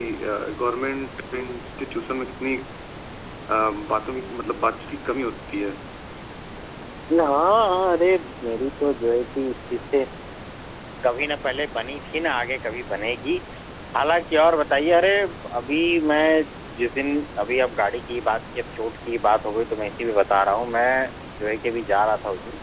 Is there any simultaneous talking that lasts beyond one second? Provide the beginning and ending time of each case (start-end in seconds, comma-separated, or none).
none